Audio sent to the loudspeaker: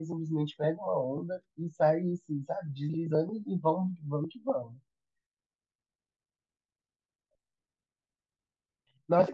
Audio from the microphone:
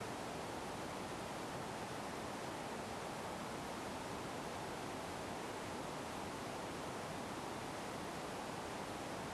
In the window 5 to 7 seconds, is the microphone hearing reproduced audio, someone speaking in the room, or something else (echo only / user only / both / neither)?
neither